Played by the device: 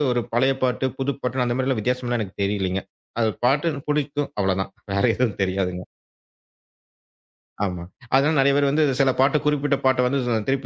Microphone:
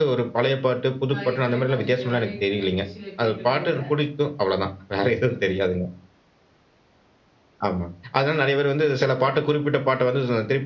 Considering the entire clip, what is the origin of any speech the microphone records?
both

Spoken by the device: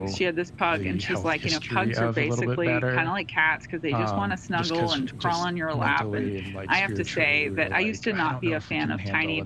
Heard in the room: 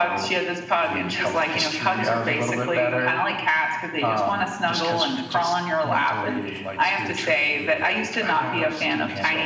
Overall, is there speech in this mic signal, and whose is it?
both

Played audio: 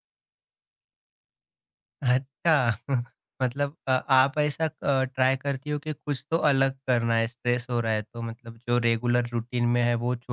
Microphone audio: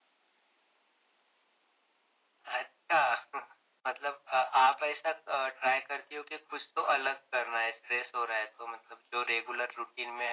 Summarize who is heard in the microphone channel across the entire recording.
echo only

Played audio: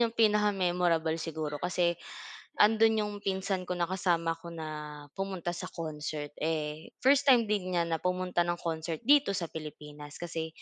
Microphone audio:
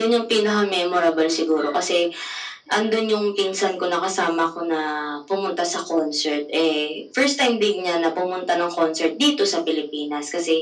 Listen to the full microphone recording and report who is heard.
echo only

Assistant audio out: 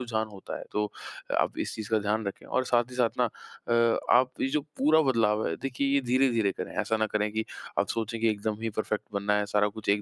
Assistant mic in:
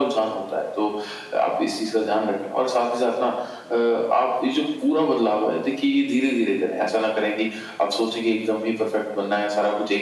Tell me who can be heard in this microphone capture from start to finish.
echo only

